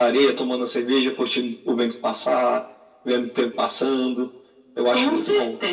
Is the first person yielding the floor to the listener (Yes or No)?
Yes